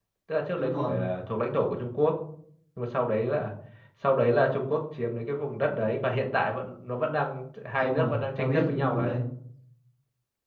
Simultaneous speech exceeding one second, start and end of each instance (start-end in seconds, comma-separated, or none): 7.8-9.1